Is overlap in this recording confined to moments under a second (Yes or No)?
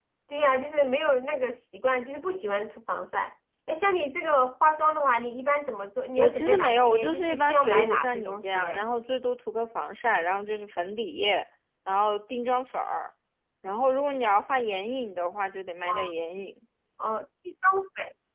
No